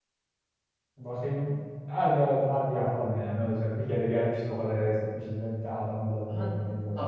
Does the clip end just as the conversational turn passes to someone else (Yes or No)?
Yes